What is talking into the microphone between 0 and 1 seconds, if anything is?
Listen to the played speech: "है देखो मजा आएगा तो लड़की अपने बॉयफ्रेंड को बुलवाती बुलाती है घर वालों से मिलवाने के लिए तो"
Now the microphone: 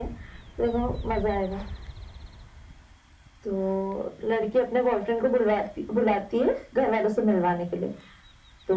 echo only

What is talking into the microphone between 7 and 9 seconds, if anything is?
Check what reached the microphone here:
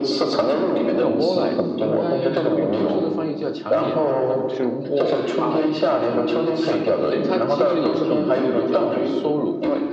both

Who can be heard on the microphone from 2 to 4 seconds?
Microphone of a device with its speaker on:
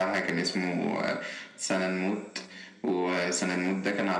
echo only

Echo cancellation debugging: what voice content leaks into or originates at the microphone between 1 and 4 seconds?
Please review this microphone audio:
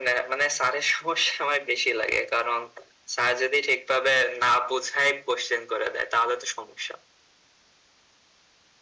echo only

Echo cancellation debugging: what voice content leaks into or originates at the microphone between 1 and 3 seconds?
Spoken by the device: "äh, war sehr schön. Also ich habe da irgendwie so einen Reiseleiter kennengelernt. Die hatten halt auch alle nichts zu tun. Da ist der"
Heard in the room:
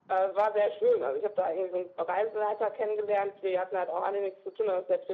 echo only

